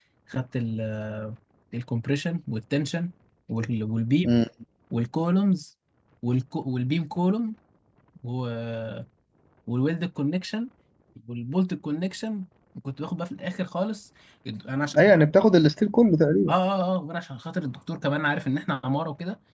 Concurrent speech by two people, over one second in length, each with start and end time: none

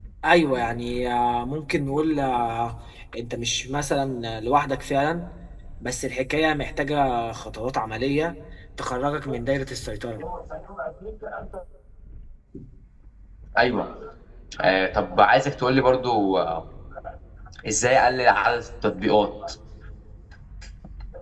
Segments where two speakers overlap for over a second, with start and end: none

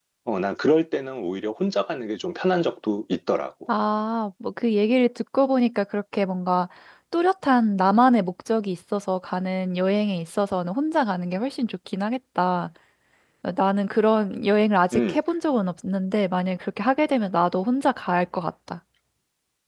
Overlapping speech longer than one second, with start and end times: none

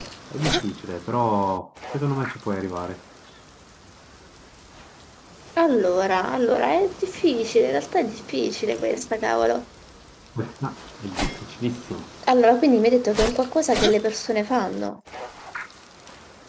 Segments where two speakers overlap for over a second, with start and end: none

